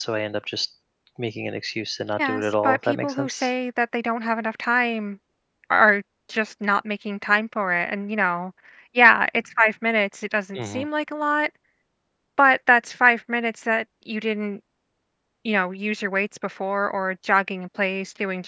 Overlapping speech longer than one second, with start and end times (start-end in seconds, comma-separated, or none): 2.2-3.5